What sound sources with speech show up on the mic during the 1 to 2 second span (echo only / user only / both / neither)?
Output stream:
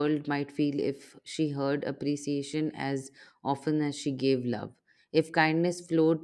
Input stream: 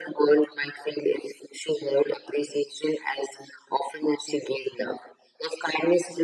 echo only